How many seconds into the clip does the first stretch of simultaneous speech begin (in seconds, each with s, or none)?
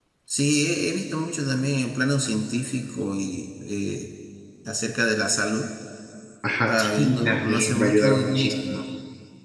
6.7 s